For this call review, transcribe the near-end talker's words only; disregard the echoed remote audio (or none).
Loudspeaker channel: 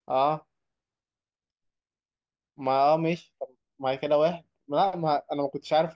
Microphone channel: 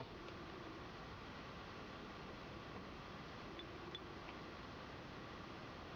none